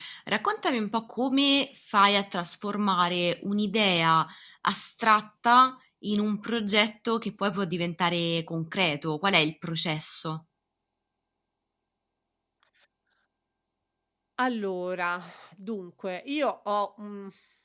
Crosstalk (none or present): none